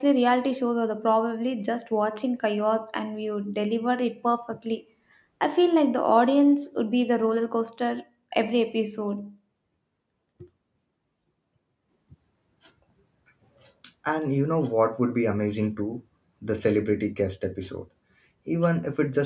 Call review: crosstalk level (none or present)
none